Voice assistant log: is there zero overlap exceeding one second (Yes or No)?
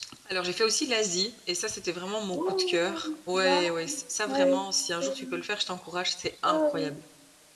No